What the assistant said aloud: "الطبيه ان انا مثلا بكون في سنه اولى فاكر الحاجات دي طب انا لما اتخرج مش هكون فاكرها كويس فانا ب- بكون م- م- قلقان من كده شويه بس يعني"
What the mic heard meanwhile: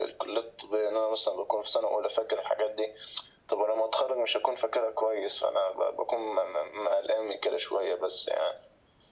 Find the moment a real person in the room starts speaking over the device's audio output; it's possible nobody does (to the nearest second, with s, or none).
none